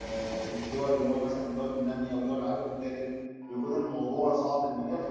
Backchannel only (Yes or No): No